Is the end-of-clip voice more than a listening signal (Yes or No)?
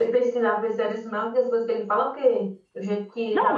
Yes